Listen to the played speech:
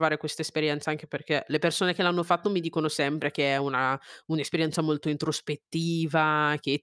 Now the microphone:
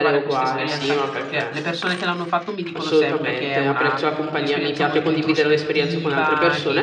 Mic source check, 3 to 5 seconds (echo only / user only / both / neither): both